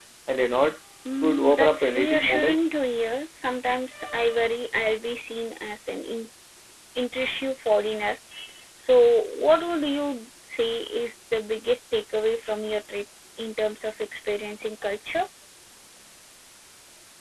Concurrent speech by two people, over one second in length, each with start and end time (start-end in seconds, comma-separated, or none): 1.2-2.6